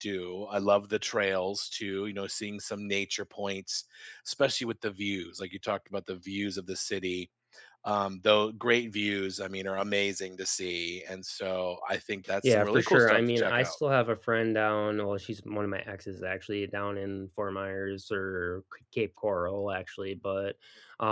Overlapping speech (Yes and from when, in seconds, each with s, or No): Yes, from 12.4 s